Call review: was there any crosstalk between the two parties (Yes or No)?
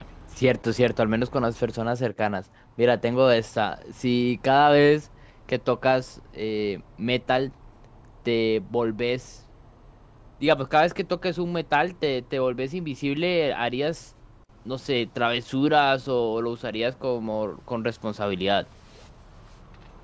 No